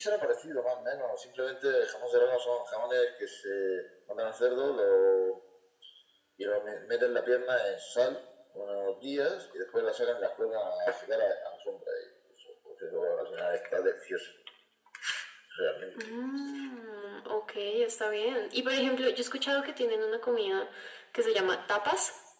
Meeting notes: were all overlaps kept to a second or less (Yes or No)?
Yes